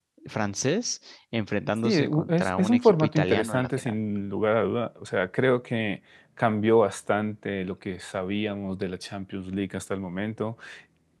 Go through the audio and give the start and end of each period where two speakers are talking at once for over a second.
1.8-3.9

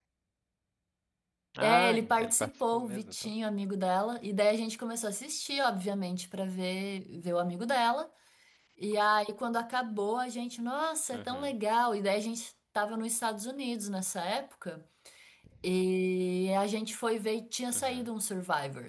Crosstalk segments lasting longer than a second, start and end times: 1.6-3.3

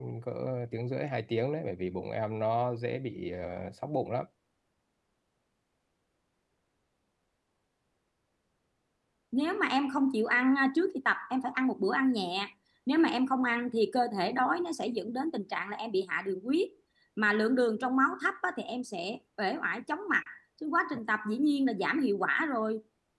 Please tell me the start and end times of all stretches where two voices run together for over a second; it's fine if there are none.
none

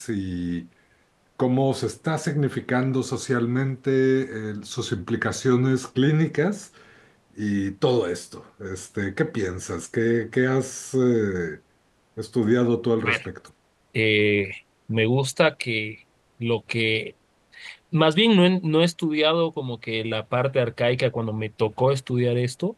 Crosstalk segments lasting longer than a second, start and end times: none

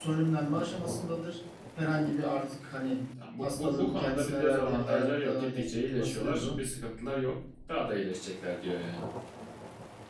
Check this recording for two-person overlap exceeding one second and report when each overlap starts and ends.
3.4-6.6

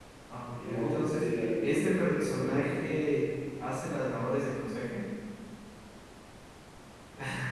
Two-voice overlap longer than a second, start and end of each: 0.6-3.0

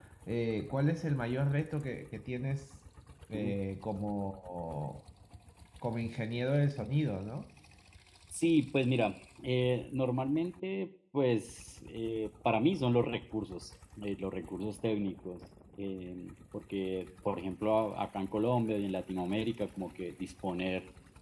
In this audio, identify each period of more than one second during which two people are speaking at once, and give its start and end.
none

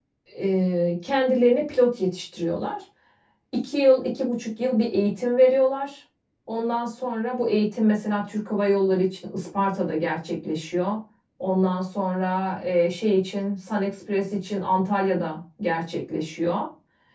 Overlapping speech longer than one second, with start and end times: none

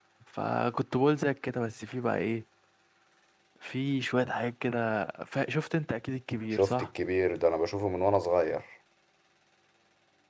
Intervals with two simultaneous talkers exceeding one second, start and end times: none

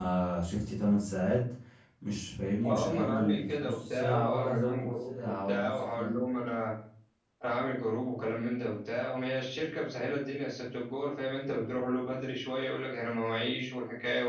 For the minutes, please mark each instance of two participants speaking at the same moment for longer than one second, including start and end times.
2.7-6.1

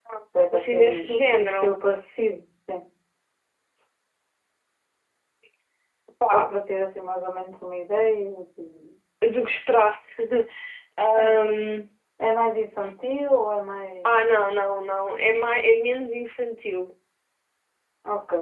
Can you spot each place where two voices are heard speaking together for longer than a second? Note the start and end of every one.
0.5-1.8

